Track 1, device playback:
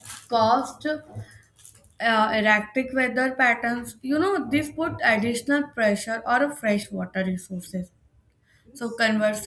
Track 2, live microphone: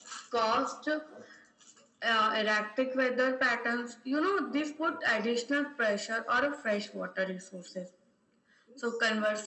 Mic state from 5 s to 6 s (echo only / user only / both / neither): echo only